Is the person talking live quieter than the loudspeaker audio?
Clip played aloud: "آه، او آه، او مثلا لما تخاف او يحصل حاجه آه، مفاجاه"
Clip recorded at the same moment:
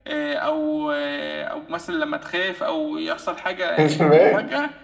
No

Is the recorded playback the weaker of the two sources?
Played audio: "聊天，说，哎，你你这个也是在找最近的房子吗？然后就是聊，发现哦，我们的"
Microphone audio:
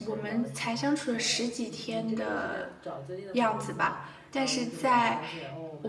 Yes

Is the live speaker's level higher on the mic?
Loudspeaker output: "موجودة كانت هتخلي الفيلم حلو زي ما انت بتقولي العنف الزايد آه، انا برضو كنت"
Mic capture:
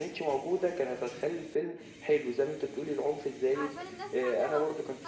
No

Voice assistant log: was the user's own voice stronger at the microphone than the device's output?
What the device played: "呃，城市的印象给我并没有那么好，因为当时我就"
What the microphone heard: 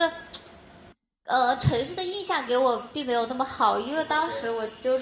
No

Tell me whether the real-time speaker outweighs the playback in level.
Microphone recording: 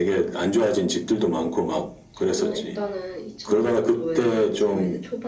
No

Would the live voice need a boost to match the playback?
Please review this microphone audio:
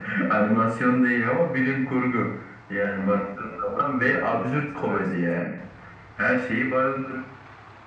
Yes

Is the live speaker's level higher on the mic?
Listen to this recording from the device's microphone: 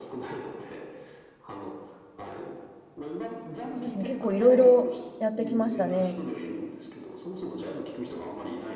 Yes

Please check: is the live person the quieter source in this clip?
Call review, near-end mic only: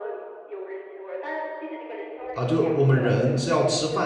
No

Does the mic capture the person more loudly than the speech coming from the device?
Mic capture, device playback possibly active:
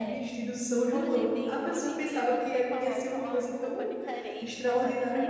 Yes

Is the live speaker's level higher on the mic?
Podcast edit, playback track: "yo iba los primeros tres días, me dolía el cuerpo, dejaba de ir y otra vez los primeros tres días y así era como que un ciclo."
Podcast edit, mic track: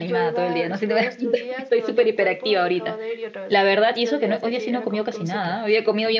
Yes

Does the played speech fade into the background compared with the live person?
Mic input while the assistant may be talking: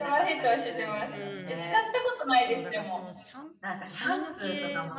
No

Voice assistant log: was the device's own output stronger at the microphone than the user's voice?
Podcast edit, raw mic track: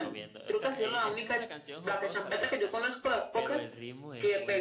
Yes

